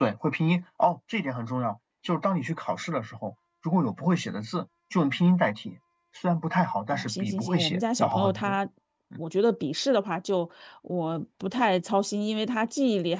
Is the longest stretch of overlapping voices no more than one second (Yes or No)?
No